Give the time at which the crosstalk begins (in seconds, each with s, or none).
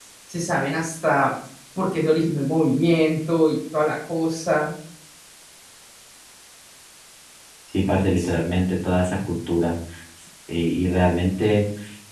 none